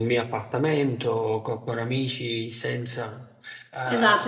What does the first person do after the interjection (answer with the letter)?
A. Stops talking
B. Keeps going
A